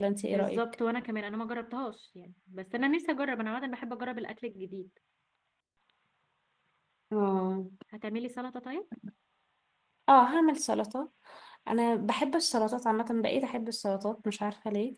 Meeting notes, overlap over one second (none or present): none